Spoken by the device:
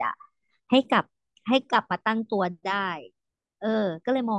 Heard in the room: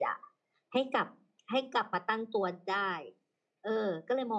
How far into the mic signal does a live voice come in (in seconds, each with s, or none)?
none